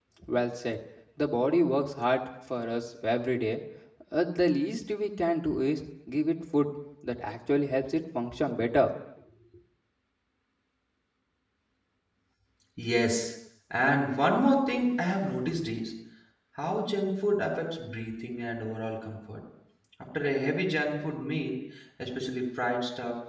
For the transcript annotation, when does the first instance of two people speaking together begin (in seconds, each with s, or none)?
none